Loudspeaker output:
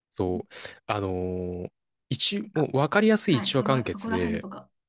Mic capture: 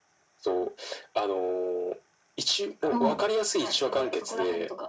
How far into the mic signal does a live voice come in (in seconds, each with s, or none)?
2.9 s